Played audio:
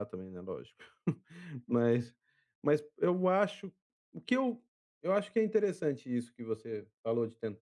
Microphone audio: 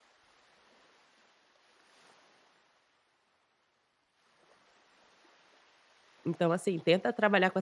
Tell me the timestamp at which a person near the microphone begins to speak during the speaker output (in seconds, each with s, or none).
6.3 s